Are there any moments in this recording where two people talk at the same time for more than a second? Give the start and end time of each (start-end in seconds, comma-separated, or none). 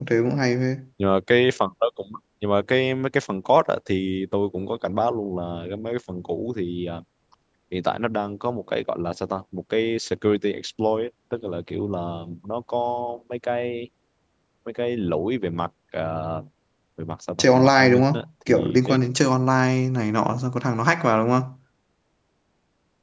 17.4-19.0